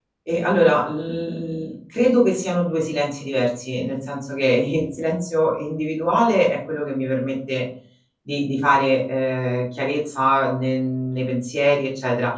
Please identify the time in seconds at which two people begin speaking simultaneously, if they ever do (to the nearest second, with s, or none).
none